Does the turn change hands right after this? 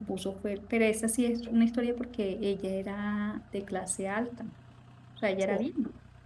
No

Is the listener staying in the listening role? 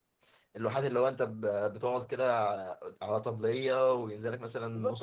No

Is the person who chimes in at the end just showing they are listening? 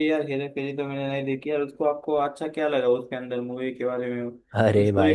No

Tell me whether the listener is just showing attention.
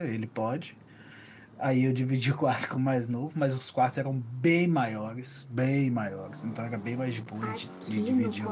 No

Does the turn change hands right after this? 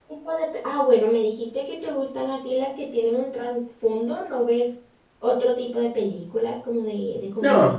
Yes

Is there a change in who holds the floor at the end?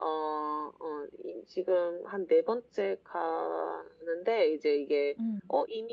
No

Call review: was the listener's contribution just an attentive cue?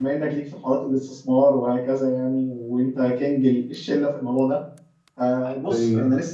Yes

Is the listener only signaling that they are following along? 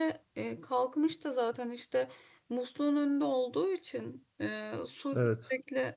Yes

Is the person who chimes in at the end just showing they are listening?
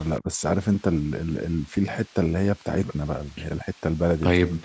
No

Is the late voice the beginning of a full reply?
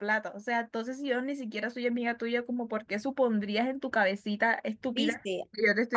Yes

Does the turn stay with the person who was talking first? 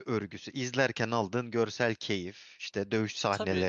No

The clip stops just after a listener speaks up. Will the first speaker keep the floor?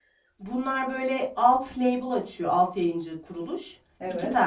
Yes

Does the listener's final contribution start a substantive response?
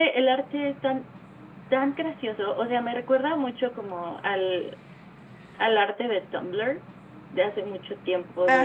No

